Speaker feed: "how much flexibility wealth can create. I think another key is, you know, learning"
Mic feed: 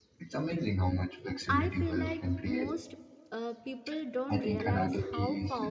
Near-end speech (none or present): present